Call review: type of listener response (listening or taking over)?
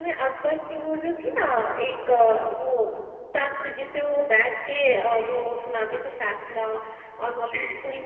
listening